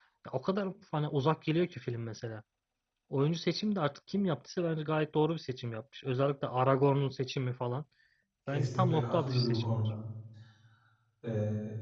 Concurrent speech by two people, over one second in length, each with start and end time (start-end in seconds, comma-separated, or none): 8.5-9.9